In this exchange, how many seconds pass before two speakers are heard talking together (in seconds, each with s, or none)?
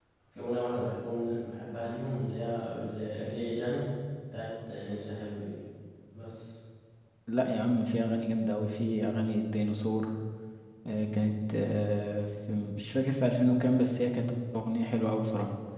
none